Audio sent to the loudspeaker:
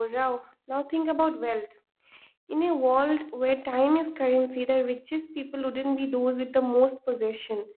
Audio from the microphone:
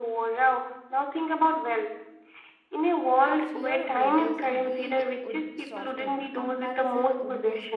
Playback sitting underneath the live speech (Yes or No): No